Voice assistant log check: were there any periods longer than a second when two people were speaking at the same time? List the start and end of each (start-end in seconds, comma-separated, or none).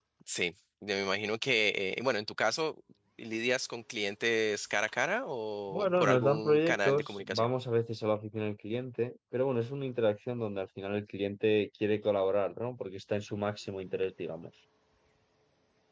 5.7-7.5